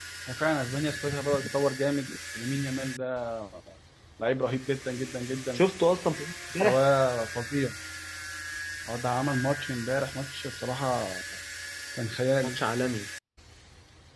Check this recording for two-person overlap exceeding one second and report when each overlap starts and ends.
none

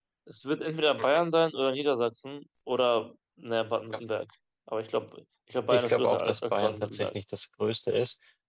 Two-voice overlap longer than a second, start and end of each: 5.7-7.1

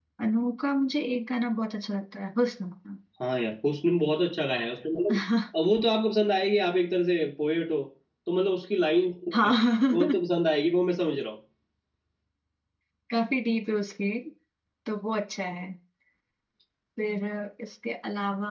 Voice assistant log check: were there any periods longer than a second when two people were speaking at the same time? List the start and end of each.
none

